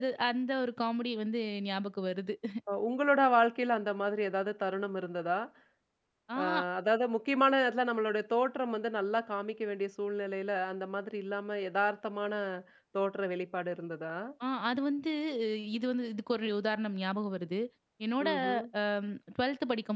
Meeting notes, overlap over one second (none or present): none